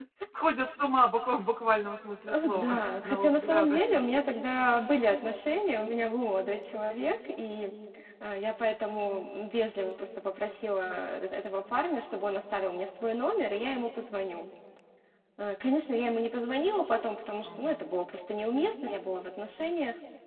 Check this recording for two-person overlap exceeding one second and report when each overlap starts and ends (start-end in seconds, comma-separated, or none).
2.3-3.8